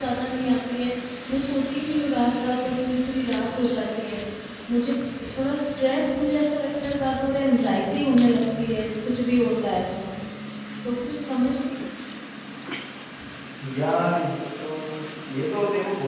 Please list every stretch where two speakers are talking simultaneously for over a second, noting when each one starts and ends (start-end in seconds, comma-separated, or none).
none